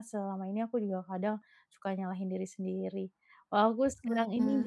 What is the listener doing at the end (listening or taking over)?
listening